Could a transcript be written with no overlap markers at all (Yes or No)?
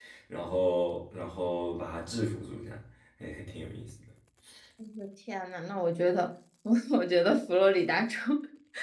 Yes